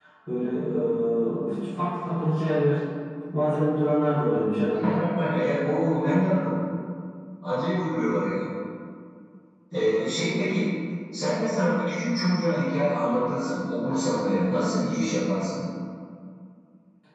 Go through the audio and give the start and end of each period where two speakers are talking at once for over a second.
none

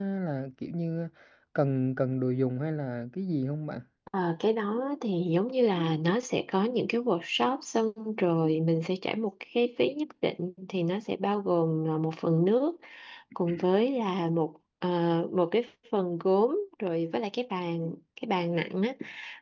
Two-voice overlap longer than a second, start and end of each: none

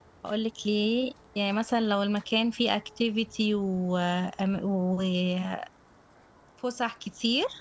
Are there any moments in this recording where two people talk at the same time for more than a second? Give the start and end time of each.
none

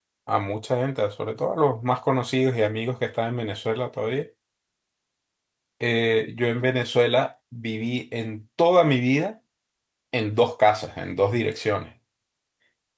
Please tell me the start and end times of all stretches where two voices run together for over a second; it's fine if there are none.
none

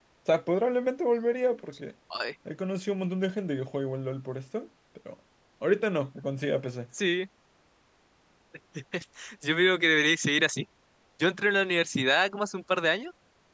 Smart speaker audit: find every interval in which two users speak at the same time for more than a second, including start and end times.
none

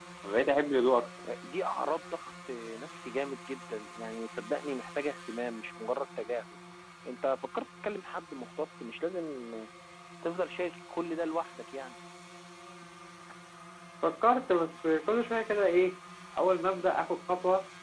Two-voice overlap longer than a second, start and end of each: none

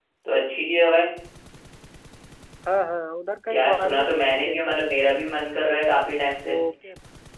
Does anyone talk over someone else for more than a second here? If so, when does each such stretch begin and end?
3.5-4.9

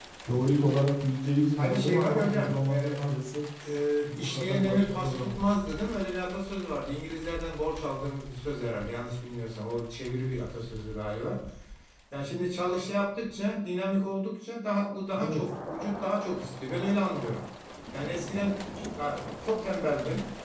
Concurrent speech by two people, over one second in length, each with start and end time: 1.6-3.0, 4.2-5.4

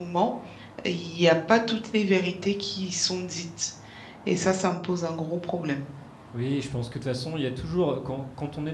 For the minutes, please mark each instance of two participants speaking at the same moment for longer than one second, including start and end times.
none

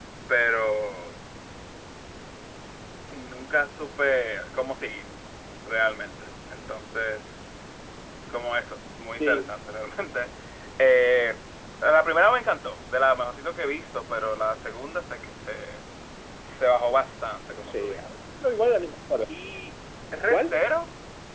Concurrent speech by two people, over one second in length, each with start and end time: none

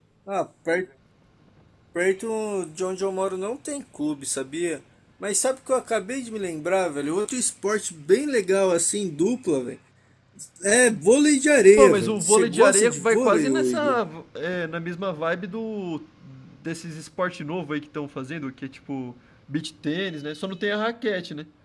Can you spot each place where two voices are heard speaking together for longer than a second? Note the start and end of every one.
11.8-14.0

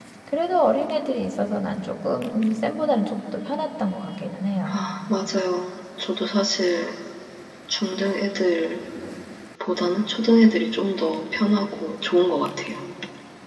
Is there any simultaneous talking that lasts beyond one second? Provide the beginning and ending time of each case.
none

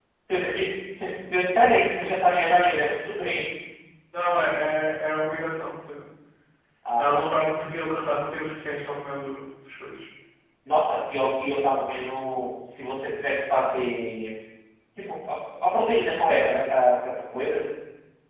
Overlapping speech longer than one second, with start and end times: none

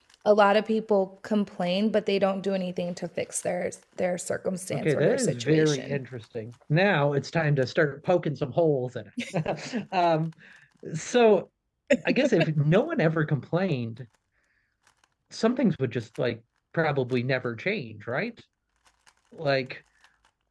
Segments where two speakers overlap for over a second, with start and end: 4.7-6.0

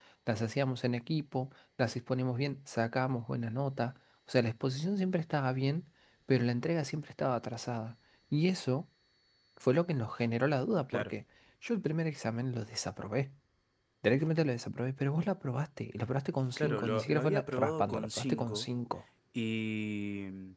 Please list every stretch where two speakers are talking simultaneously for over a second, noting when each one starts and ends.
16.6-18.7

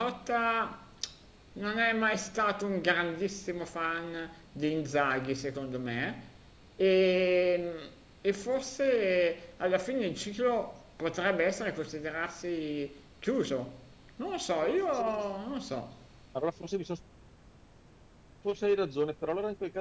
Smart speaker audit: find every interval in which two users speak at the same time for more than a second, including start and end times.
none

